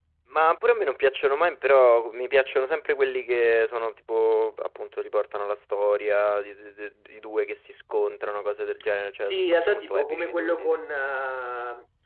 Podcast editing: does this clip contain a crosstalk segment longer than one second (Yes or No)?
Yes